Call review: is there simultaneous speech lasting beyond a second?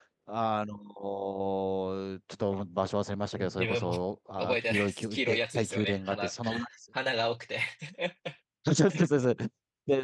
Yes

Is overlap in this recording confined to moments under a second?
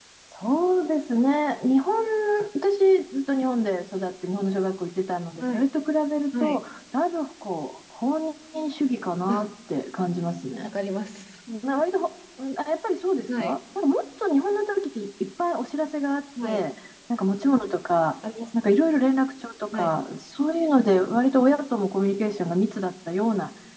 Yes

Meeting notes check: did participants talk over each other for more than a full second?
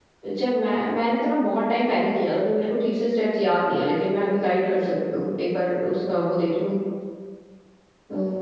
No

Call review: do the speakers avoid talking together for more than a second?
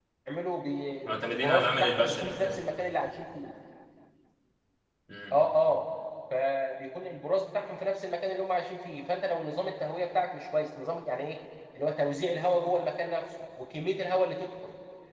No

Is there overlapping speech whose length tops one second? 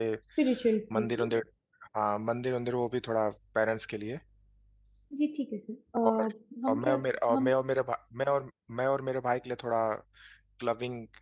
No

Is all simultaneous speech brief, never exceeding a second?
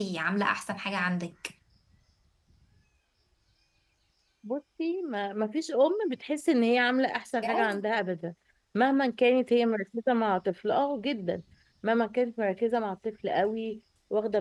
Yes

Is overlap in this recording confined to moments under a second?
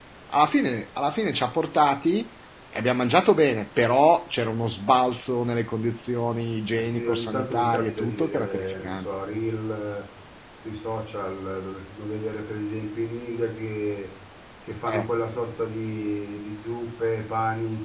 No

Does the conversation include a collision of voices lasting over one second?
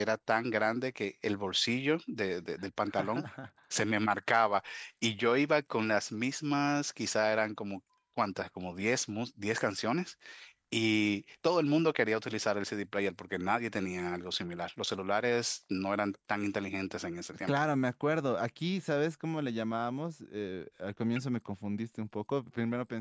No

